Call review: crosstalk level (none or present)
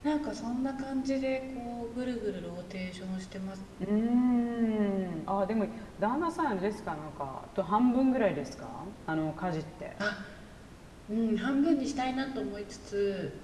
none